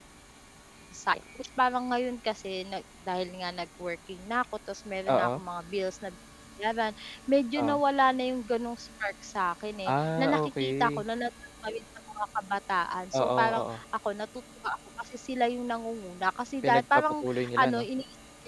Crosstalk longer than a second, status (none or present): present